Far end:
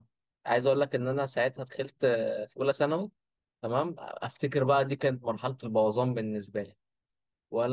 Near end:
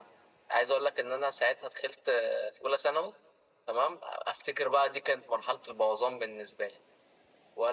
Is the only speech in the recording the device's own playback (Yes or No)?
Yes